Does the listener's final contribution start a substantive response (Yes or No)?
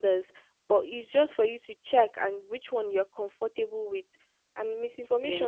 No